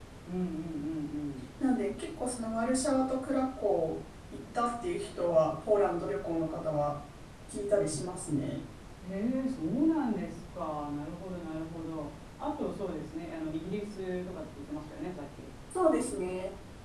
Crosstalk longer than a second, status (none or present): none